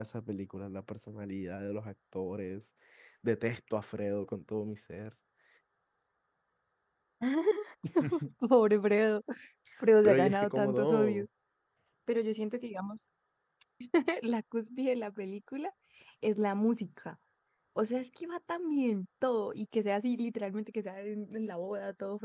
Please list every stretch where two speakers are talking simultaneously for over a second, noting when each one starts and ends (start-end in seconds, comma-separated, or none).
10.0-11.3